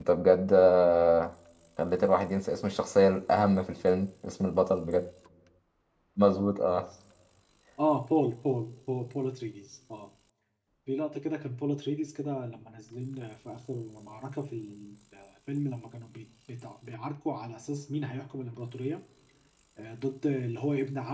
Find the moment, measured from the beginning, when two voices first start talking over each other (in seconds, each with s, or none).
none